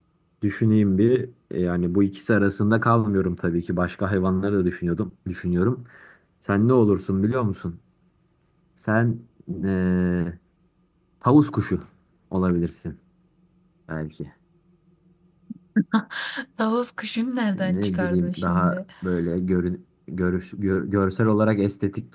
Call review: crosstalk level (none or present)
present